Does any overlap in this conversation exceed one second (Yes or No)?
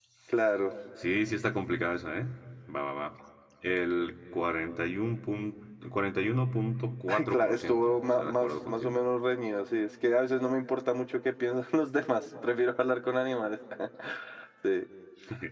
Yes